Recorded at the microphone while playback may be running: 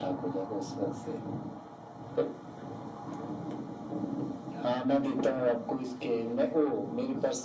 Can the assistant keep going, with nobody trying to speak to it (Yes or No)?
Yes